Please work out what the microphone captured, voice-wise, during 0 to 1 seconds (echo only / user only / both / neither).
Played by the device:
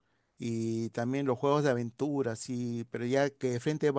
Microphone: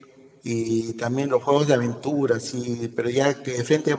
echo only